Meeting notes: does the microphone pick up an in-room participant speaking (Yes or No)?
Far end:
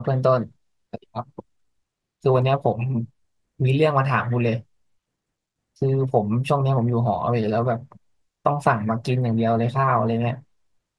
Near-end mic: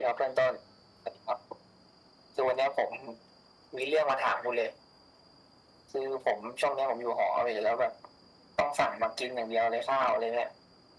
No